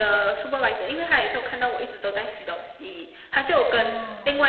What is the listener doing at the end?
listening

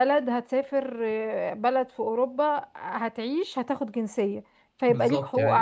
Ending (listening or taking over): taking over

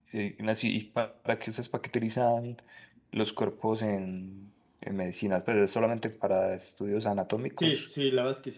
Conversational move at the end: taking over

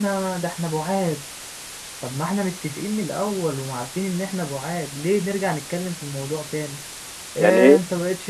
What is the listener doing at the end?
listening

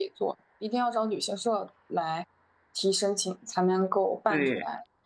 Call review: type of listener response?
taking over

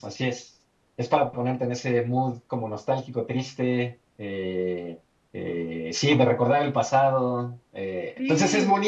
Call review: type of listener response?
listening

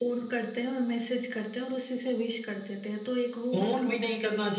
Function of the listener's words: taking over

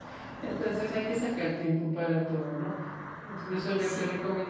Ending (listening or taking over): listening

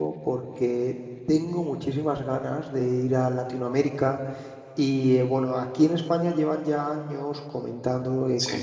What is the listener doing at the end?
listening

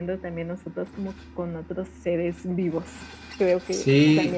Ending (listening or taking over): taking over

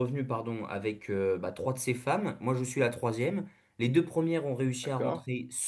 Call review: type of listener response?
listening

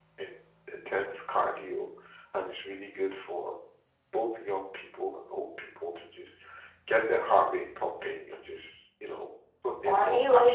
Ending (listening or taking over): taking over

